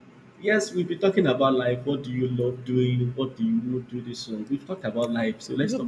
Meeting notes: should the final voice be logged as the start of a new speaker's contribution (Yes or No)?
Yes